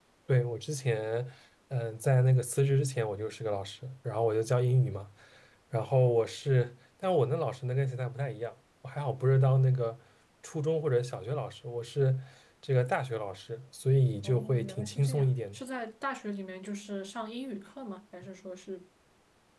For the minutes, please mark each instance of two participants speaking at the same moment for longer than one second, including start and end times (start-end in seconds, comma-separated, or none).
14.2-15.6